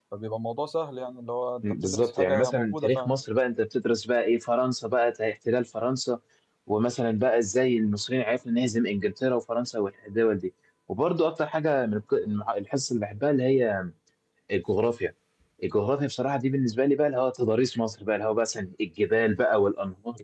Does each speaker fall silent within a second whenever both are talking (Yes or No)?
No